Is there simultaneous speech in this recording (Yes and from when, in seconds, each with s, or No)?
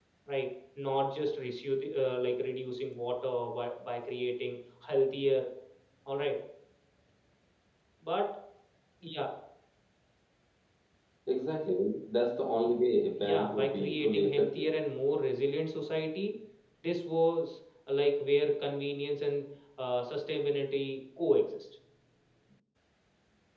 Yes, from 13.2 s